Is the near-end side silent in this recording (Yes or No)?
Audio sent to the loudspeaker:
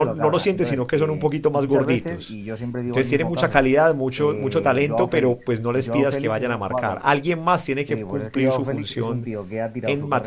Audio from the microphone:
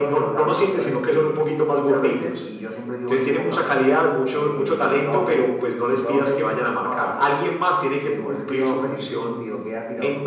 Yes